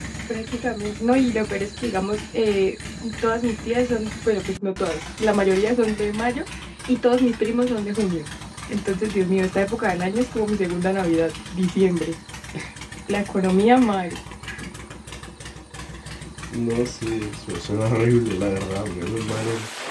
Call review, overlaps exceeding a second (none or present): none